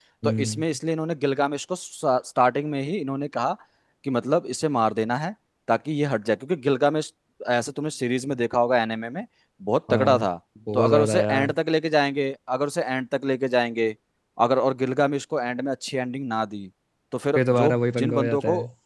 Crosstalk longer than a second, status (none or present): present